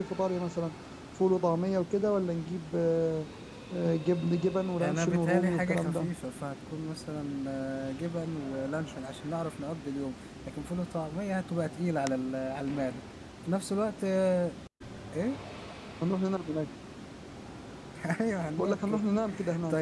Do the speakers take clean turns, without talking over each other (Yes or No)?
No